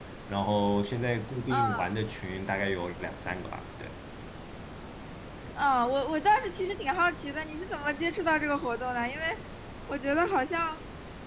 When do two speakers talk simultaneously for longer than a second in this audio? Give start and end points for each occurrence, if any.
none

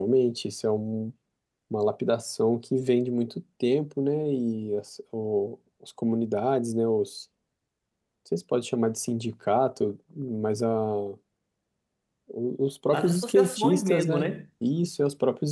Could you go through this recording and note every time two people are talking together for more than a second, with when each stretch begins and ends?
12.9-14.4

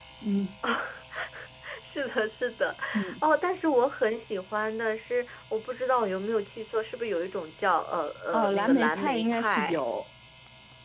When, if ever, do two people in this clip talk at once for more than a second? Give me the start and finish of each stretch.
8.3-9.8

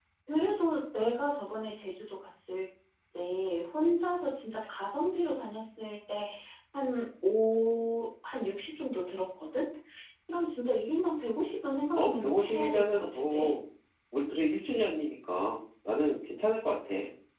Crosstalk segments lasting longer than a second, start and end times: 11.9-13.5

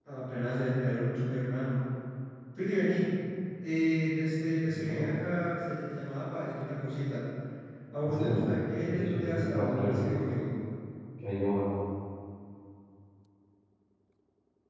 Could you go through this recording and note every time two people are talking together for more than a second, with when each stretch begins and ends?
8.9-10.1

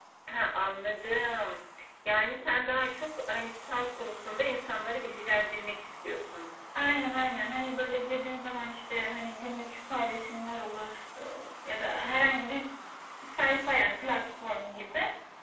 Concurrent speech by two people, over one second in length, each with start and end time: none

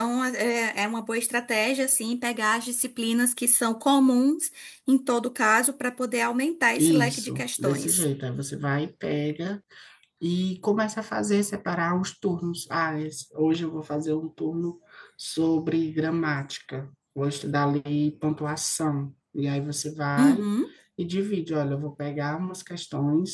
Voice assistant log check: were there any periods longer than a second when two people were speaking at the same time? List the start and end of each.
6.8-8.1

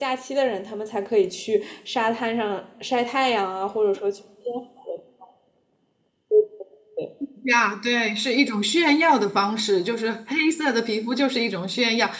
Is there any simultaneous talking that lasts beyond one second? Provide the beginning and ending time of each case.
none

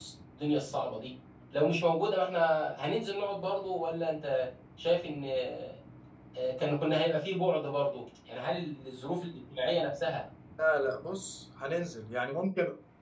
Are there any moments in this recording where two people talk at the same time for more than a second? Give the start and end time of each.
none

